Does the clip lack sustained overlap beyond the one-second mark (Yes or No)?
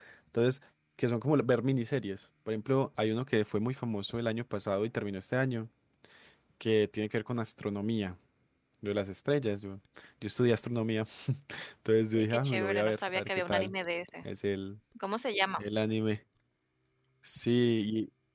No